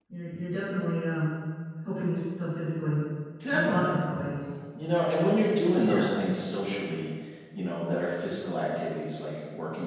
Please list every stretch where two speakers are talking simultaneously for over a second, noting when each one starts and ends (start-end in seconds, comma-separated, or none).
none